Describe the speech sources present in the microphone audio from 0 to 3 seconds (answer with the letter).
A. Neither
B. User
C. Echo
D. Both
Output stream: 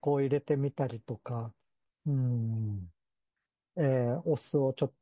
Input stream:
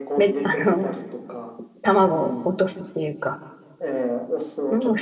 D